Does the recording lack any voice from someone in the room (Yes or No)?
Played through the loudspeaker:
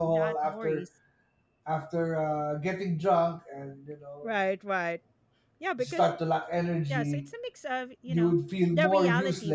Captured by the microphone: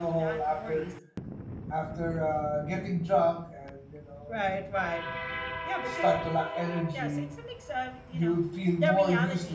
Yes